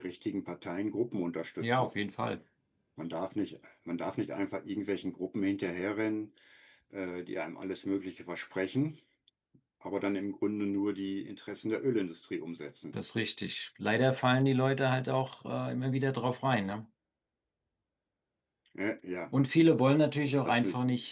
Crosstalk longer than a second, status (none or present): none